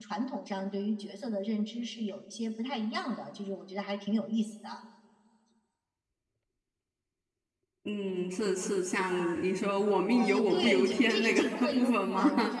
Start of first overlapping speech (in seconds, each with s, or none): 10.2 s